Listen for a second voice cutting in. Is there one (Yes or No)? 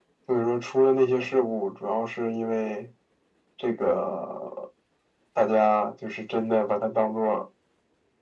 No